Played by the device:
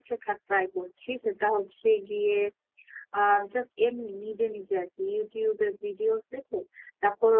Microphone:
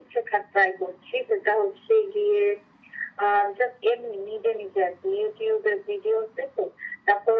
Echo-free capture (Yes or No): No